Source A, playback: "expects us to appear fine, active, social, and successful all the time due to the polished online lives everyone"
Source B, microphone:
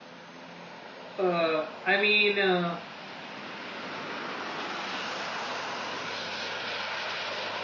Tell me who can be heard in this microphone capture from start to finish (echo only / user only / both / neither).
user only